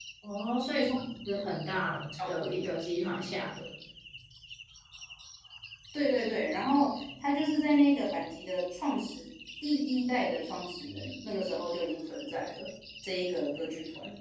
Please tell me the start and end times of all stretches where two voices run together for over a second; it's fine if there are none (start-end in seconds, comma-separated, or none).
none